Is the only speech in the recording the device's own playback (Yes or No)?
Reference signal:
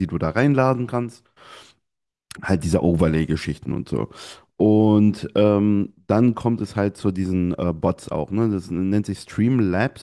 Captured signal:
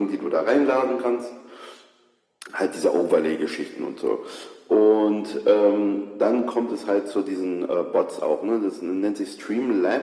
Yes